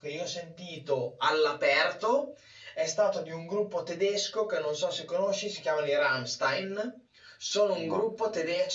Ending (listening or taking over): listening